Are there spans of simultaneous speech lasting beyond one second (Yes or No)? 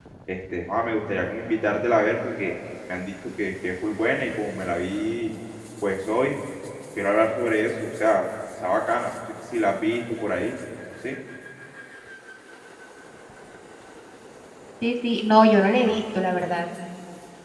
No